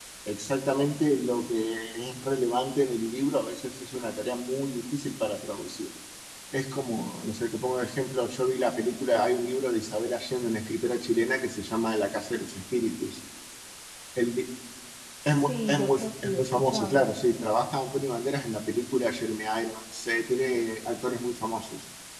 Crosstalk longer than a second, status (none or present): present